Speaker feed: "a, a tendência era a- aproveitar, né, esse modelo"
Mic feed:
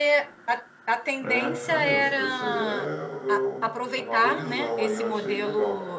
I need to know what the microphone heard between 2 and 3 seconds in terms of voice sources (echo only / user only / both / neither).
both